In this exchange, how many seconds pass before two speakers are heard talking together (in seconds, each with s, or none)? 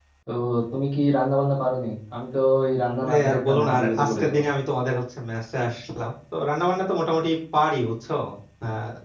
3.0 s